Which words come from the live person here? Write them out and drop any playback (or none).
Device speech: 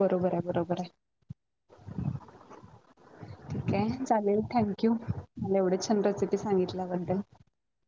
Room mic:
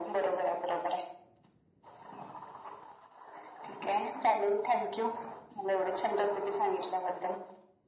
none